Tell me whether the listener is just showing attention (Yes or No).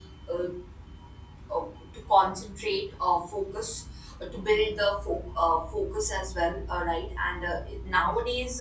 Yes